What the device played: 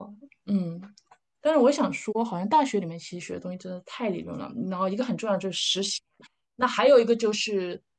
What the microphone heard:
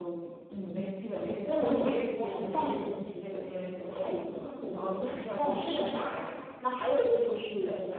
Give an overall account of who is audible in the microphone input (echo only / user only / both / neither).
both